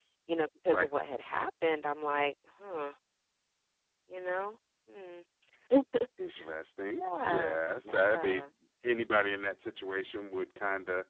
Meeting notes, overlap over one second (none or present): present